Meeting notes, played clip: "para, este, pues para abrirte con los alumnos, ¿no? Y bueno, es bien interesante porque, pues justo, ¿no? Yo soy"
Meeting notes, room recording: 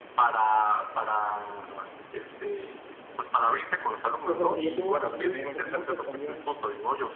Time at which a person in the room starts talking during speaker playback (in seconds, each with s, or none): 4.2 s